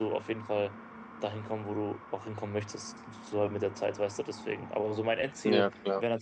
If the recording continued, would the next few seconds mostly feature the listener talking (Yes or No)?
No